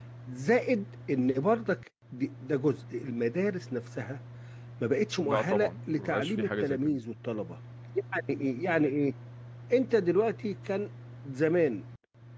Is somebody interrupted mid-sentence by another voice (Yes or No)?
Yes